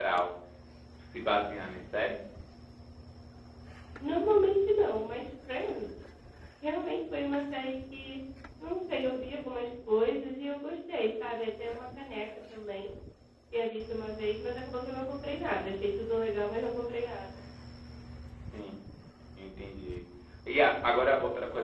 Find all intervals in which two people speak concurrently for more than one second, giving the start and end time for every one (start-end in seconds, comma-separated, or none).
none